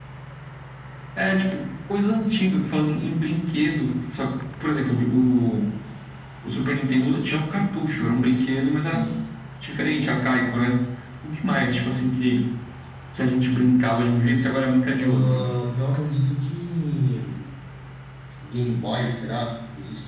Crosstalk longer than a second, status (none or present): none